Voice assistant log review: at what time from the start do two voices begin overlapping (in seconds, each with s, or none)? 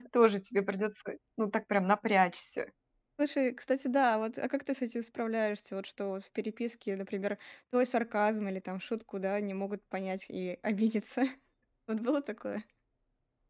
none